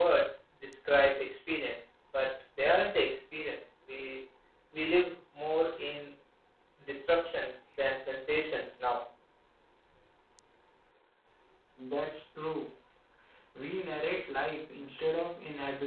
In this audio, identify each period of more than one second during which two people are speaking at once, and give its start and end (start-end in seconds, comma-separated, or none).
none